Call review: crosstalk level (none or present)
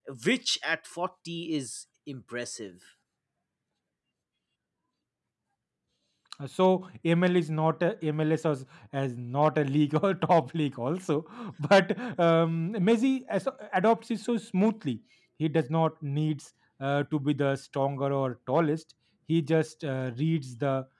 none